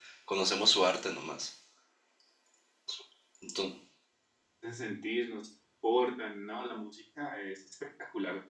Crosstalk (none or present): none